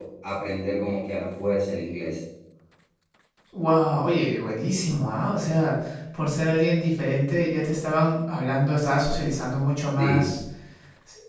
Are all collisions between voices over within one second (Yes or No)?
Yes